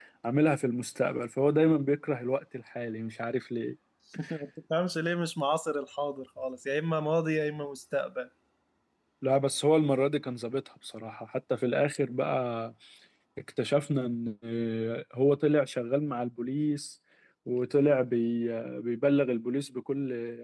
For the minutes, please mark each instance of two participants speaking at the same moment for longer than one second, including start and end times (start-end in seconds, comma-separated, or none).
none